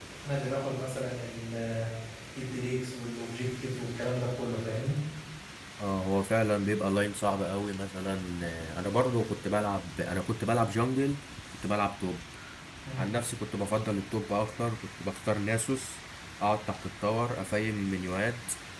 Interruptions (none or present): none